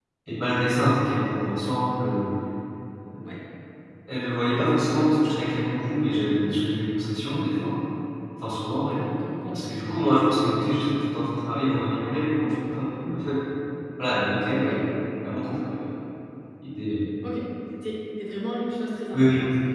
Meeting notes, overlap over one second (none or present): none